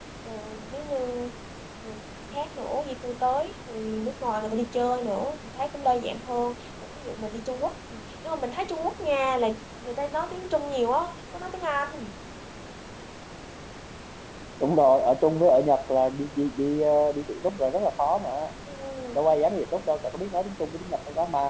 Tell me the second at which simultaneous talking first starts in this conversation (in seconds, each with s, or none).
none